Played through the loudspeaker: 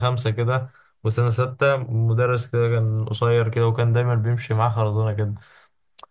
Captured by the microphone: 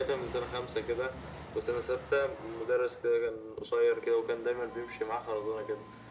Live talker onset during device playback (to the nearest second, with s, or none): none